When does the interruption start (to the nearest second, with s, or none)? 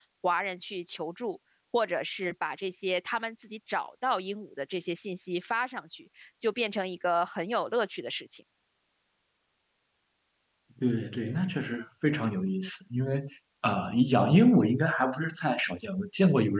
none